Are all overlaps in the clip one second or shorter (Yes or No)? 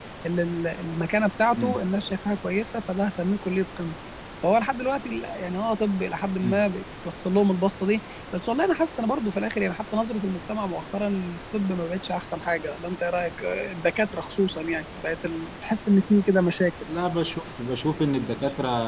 Yes